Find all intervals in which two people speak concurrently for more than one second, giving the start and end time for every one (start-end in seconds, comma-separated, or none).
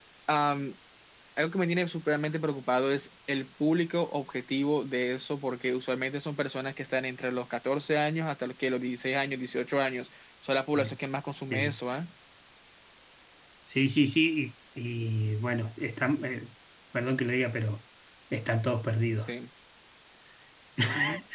none